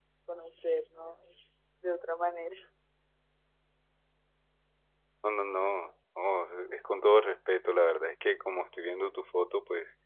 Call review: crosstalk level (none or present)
none